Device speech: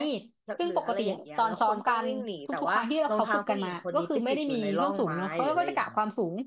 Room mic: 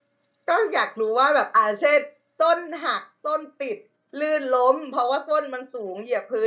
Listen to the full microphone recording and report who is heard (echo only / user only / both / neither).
user only